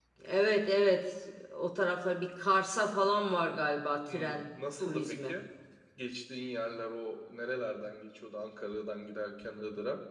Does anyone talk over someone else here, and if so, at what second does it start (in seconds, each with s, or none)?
4.1 s